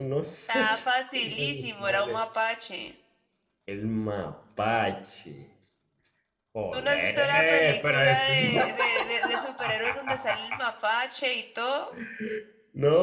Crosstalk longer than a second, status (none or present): present